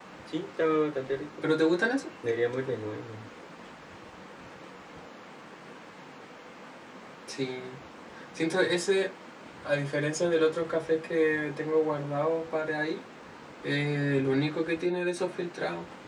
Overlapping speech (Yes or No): No